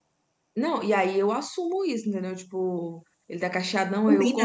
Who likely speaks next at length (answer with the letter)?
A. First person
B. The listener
A